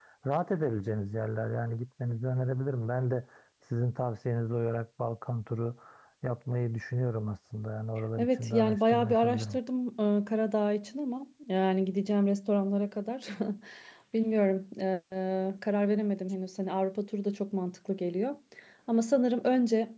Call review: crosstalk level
present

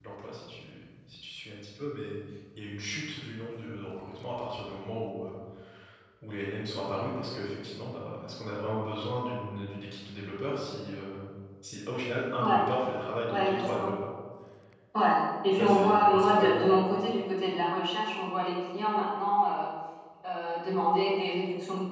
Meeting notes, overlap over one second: present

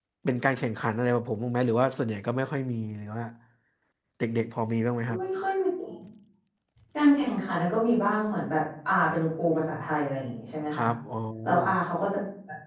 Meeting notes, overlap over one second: none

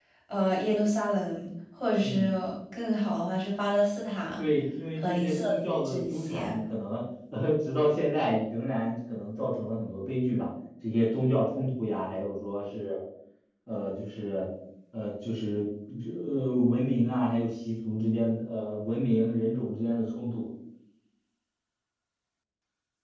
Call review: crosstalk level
present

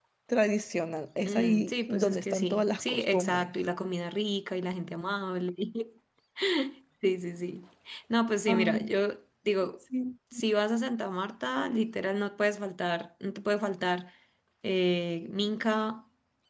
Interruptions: present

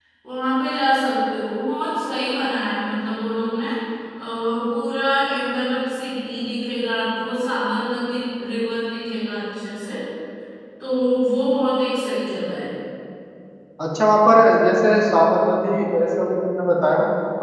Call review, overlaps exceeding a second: none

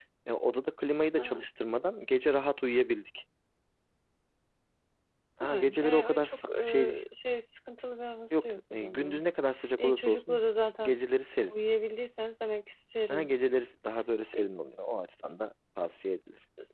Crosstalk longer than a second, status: present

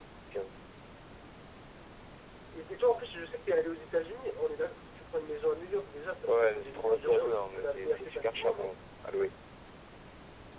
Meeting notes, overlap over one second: present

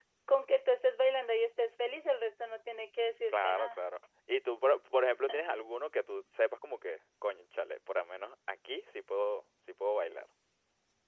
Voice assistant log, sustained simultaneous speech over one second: none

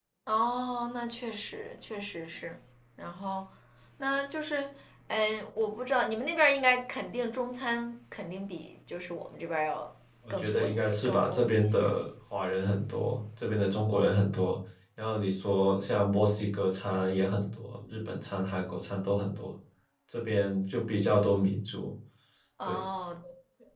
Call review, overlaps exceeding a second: present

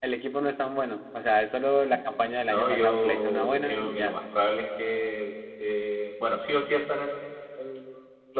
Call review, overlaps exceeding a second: present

